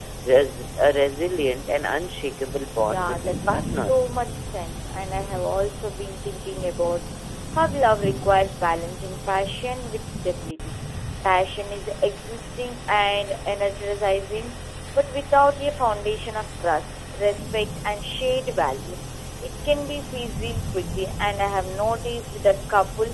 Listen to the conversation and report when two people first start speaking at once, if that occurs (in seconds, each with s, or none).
2.9 s